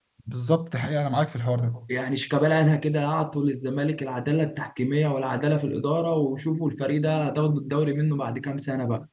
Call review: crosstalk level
none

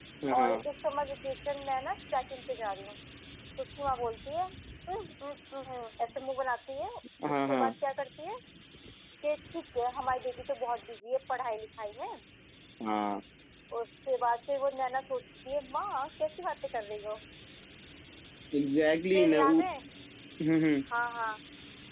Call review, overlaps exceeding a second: none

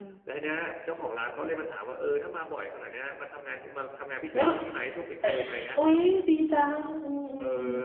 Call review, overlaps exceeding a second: none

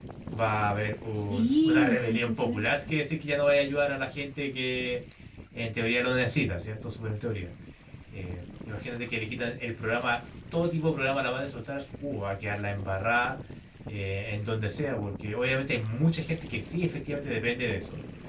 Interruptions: present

